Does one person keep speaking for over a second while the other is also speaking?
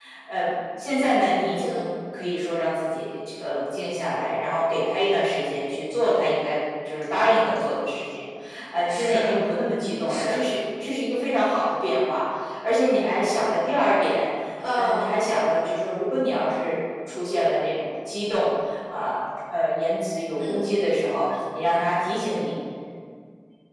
No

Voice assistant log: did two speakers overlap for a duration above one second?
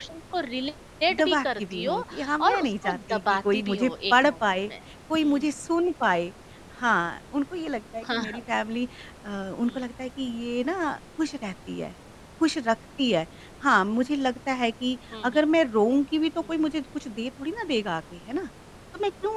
Yes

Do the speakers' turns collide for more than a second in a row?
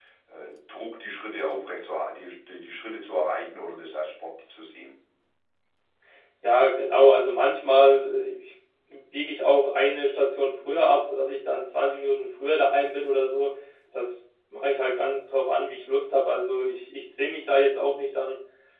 No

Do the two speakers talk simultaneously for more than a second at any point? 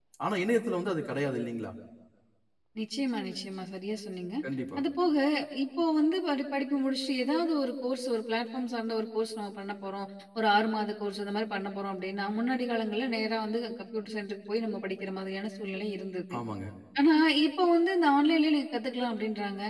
No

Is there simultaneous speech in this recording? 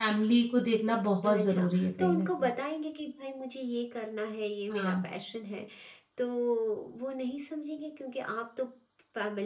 Yes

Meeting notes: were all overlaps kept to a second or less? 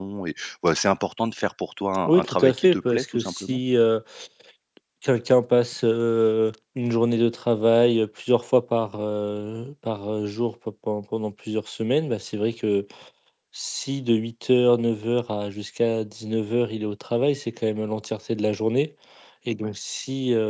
No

